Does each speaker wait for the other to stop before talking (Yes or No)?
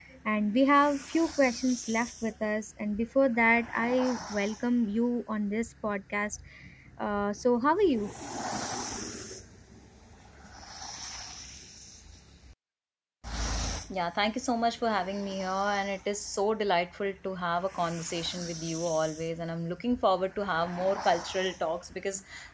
Yes